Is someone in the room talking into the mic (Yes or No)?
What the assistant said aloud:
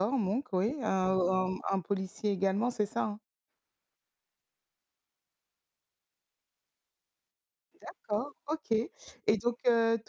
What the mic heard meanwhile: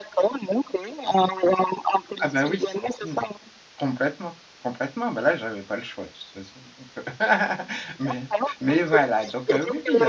Yes